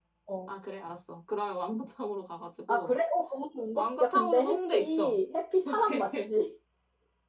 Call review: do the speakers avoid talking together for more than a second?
No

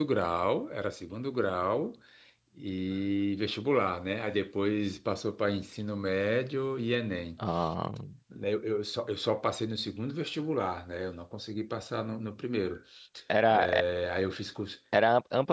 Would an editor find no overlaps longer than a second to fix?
Yes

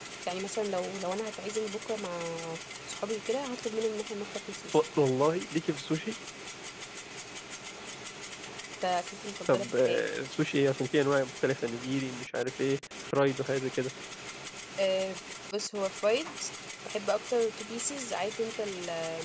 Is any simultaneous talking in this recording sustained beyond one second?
No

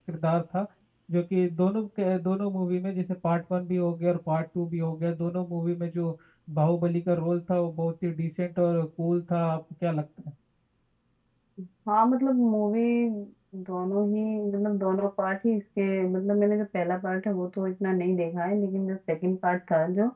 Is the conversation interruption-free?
Yes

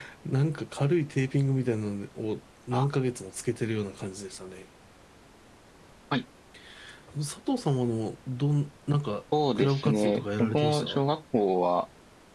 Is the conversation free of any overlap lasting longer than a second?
No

